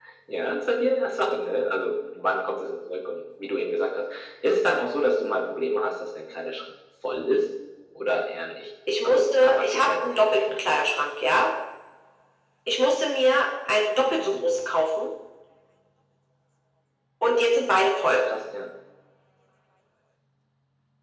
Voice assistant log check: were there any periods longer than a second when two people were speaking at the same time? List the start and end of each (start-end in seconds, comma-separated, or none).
9.0-10.6